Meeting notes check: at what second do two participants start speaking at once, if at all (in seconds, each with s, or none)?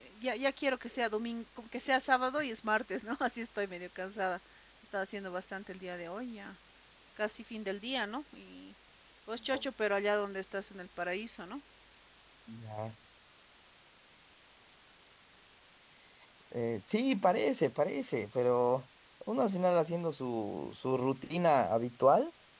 none